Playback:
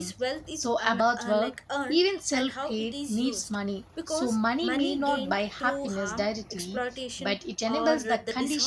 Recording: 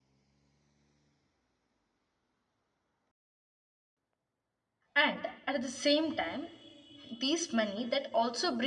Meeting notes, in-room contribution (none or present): present